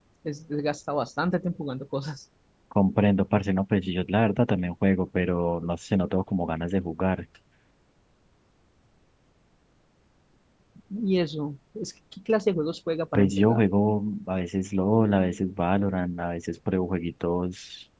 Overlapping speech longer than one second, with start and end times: none

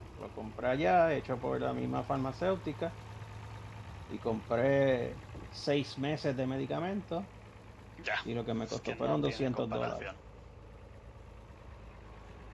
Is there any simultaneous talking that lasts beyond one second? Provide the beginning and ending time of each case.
8.7-10.1

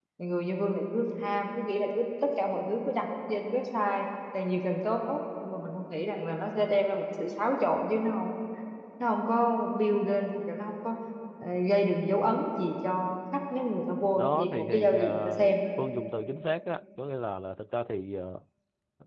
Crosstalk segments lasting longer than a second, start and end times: 14.1-15.5

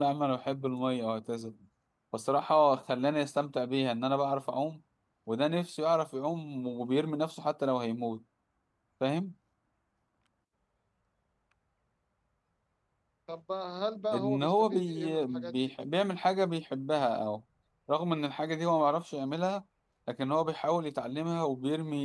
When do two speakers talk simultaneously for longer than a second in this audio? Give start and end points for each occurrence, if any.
14.1-15.5

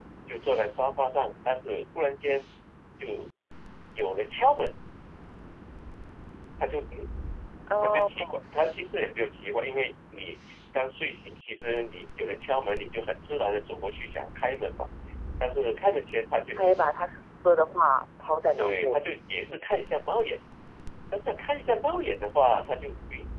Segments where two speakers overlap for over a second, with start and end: none

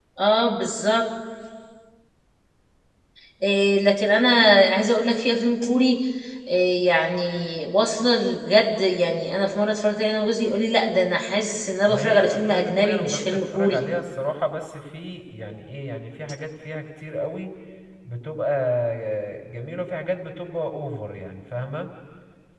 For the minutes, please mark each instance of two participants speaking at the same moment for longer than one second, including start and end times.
11.9-13.9

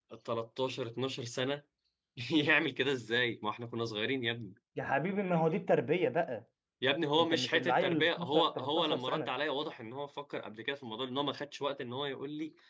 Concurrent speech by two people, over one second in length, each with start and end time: 7.2-9.3

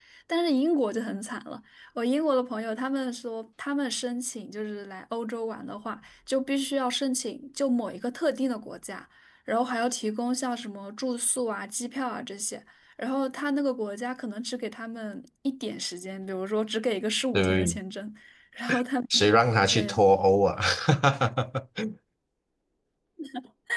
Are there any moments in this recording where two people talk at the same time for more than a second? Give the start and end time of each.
none

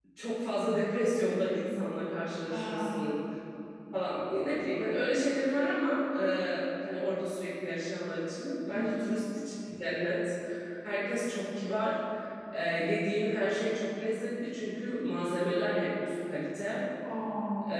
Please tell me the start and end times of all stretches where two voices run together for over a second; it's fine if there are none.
none

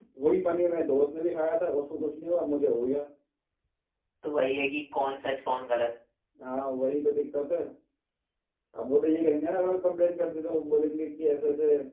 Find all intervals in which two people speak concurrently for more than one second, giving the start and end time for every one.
none

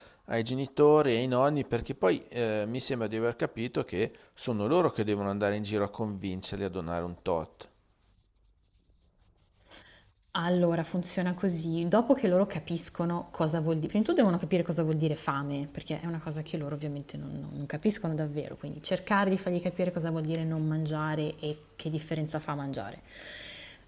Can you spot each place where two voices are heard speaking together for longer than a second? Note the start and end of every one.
none

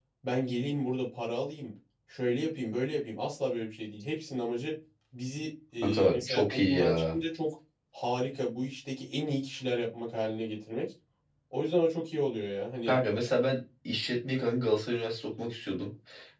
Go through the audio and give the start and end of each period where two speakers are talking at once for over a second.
5.8-7.2

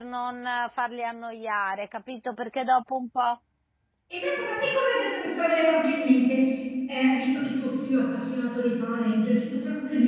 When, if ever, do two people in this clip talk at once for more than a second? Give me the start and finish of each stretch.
none

